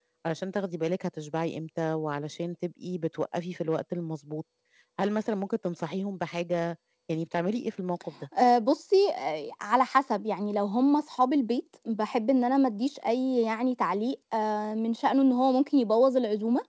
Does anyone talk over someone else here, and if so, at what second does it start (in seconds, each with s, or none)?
none